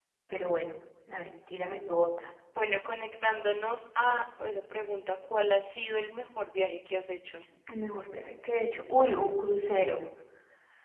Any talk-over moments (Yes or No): No